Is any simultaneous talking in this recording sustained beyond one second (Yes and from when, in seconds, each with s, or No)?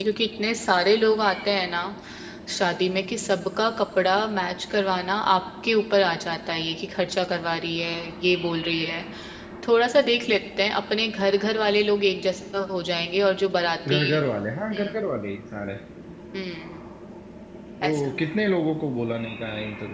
No